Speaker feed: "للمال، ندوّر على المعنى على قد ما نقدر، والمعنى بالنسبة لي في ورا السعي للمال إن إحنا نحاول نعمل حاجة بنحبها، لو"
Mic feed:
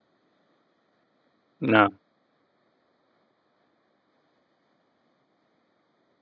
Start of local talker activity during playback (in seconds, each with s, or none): 1.6 s